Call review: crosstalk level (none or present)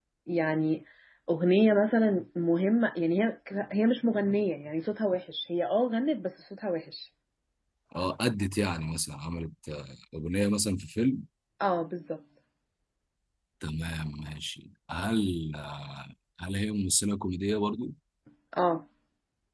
none